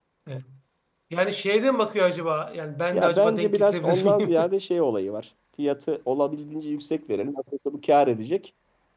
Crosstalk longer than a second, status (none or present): present